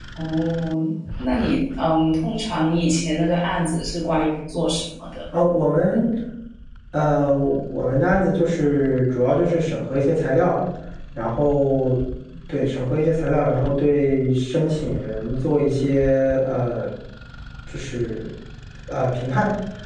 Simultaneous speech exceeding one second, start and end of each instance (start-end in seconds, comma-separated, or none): none